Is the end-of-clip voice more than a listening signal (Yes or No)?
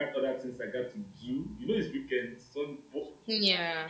No